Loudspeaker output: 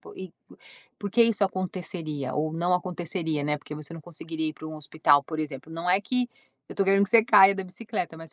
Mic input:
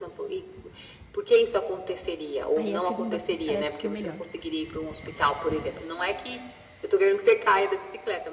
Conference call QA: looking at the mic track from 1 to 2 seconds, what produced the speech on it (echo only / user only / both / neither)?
echo only